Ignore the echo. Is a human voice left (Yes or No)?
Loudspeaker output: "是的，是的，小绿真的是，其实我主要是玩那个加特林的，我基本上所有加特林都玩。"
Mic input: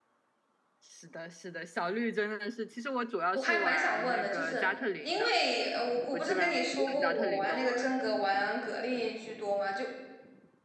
Yes